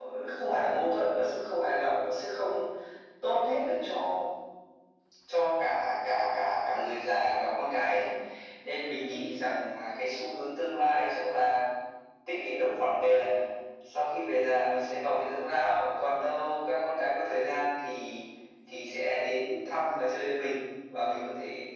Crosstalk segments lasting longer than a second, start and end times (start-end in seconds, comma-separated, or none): none